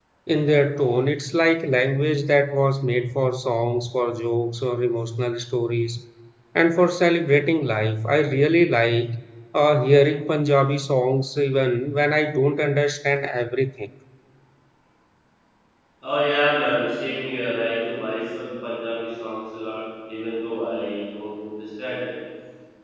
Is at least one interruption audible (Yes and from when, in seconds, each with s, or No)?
No